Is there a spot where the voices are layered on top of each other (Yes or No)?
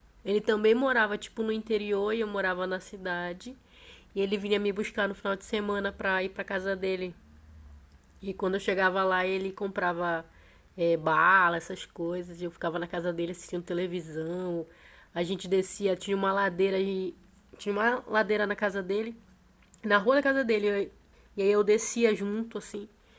No